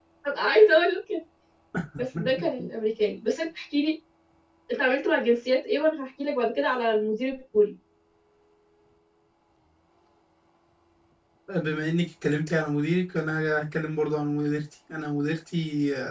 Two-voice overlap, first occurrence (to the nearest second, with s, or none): none